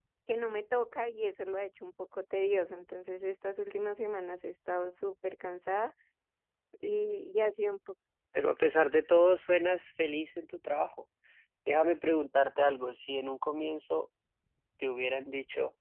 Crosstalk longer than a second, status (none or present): none